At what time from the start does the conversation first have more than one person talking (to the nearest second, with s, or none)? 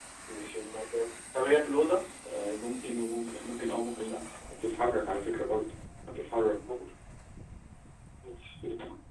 none